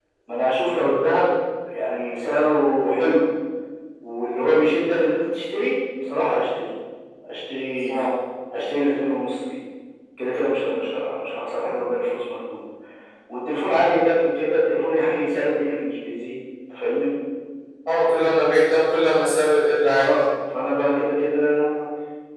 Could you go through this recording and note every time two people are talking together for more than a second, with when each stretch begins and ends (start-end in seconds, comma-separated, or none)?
none